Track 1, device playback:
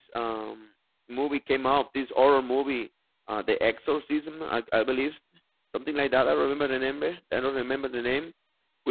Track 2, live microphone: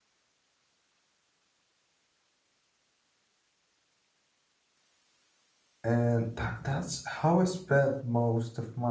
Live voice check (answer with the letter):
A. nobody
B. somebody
B